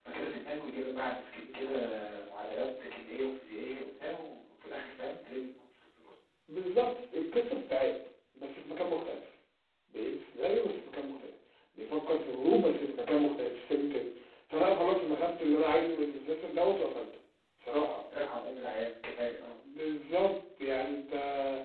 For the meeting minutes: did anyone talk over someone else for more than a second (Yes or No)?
No